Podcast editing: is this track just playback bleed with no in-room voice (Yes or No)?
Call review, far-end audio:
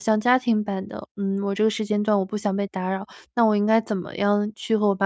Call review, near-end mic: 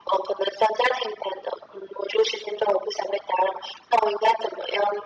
Yes